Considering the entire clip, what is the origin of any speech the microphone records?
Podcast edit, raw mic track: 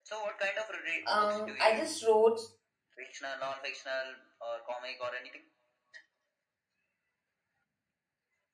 both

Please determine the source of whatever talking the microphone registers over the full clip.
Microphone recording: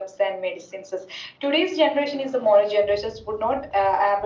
echo only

